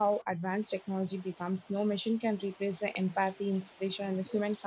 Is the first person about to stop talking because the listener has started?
No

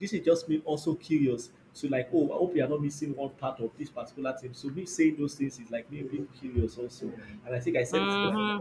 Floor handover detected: No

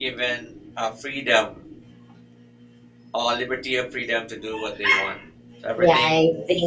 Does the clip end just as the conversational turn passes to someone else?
Yes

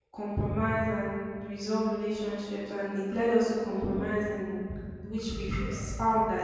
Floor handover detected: No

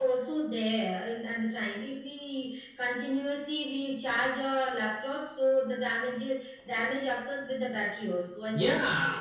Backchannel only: No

